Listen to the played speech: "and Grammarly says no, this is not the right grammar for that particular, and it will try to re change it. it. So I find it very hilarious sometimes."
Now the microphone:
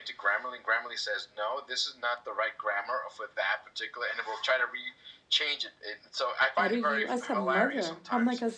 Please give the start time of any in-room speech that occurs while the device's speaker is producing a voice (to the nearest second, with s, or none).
7 s